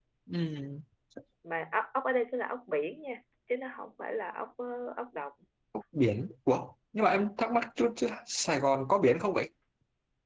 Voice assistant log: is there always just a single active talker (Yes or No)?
Yes